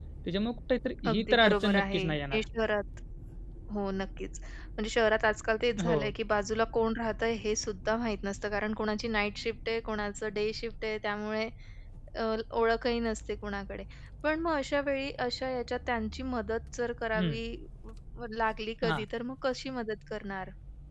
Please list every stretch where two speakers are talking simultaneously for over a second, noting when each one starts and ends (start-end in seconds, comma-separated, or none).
1.1-2.4